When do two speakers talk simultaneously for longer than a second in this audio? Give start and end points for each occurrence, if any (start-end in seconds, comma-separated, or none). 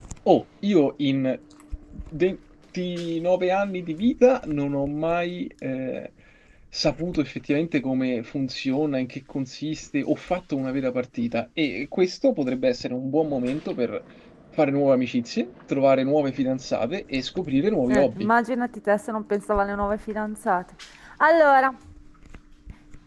none